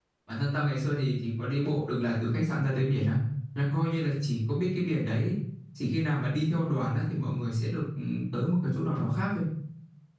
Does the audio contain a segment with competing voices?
No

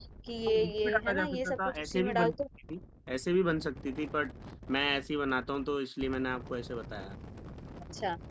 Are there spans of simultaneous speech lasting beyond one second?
Yes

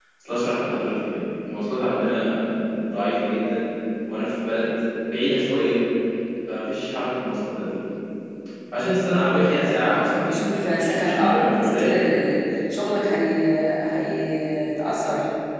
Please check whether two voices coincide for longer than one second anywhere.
Yes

